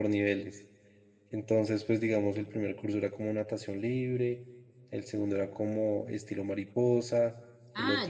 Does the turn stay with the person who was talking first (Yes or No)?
No